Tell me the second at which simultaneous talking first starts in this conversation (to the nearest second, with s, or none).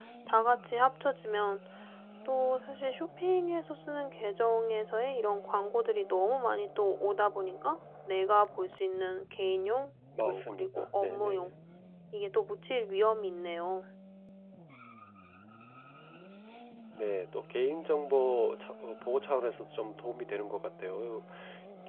10 s